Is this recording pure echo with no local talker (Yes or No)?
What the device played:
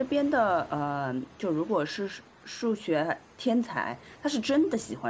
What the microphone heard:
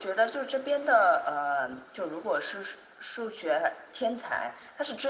Yes